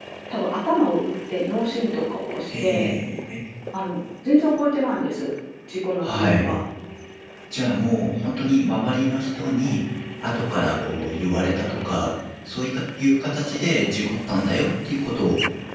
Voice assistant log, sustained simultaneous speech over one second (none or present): none